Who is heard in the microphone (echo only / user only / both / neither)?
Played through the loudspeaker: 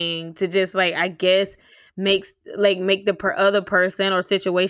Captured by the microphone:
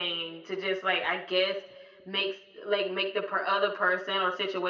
echo only